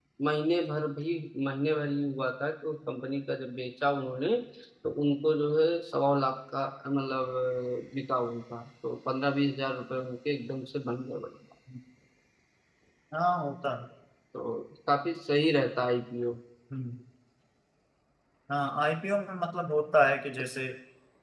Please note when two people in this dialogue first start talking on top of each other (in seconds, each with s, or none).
none